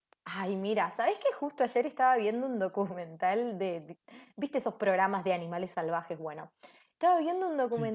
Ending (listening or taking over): listening